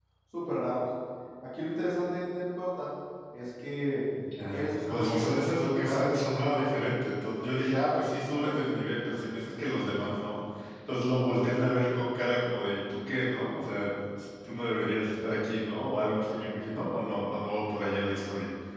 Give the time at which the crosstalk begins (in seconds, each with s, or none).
4.5 s